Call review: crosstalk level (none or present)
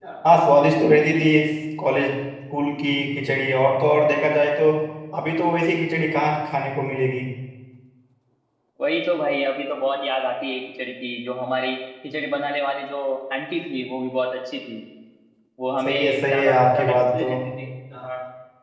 present